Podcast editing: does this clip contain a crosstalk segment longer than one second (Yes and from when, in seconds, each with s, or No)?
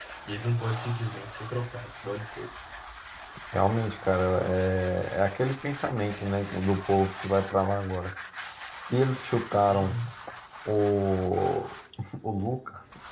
No